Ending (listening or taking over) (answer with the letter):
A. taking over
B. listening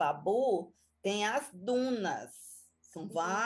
B